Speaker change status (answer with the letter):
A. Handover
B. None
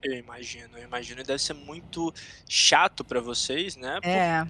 B